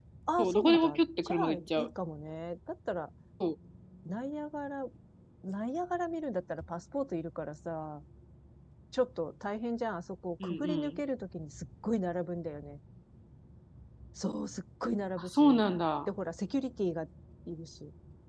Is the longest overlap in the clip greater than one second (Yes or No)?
Yes